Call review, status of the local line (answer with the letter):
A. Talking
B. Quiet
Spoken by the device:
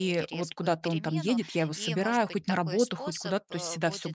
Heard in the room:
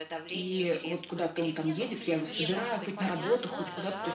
A